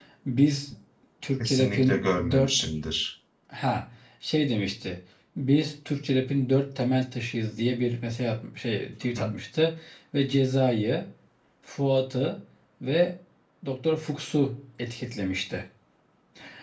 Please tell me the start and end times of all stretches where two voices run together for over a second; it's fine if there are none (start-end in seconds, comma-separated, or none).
1.4-2.6